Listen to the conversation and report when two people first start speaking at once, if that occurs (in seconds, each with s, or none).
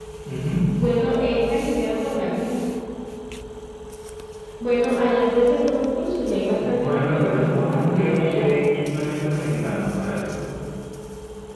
6.6 s